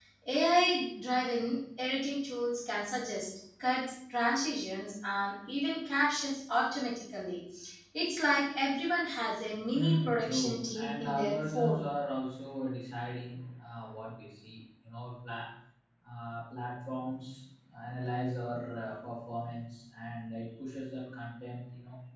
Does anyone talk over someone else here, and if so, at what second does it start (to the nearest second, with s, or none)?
10 s